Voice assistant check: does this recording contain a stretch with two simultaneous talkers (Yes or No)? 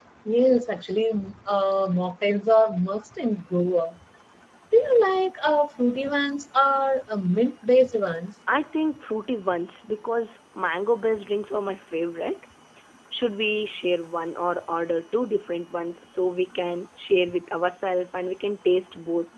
No